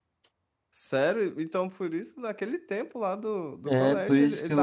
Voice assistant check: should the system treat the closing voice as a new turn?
Yes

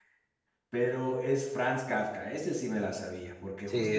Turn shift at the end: Yes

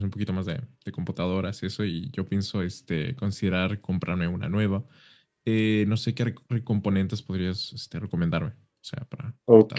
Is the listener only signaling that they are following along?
No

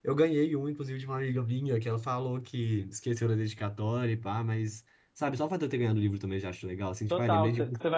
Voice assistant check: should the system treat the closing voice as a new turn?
Yes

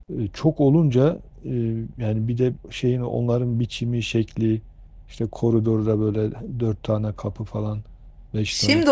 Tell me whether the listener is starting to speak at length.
Yes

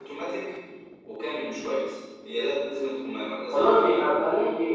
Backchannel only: No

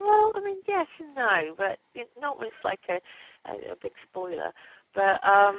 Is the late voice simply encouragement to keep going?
No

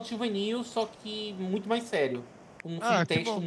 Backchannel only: No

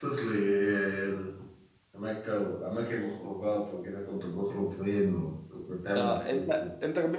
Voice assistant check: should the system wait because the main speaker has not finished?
No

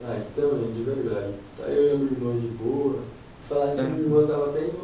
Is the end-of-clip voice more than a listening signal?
No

